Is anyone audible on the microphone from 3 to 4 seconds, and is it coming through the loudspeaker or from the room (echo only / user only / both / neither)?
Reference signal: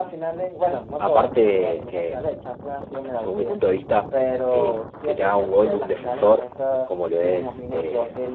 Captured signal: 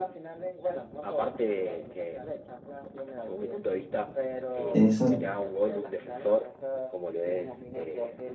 echo only